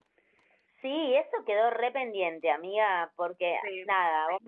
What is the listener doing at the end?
listening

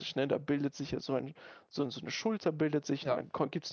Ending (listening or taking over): listening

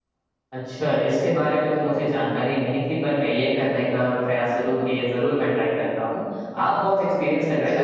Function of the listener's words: listening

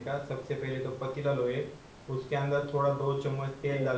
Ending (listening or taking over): listening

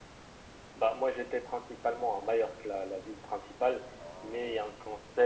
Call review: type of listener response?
listening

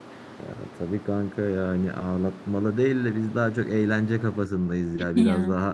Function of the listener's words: listening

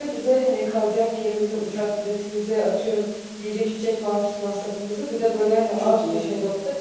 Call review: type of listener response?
listening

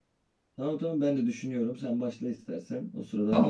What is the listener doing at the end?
taking over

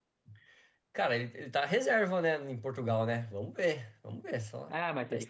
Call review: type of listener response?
taking over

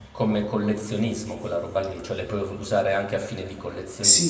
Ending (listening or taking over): taking over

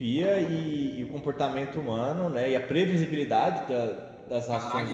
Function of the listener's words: taking over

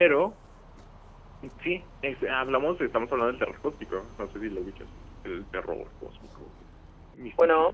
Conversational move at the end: taking over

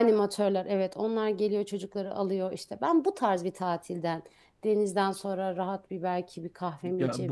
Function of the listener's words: taking over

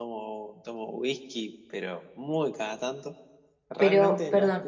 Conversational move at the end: taking over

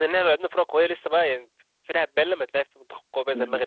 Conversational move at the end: taking over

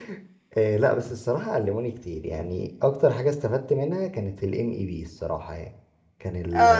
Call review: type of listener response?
taking over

